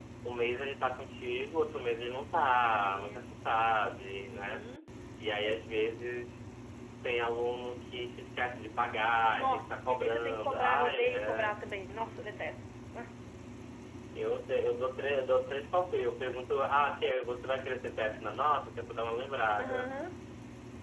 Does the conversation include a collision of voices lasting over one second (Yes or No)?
Yes